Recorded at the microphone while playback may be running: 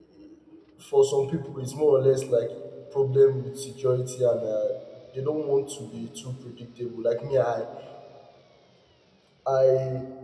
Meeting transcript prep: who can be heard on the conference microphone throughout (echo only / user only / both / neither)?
user only